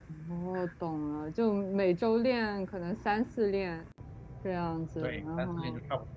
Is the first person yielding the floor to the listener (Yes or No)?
Yes